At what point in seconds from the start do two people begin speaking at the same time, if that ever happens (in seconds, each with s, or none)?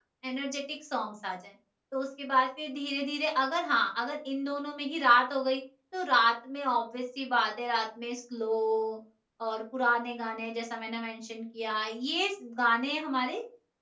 none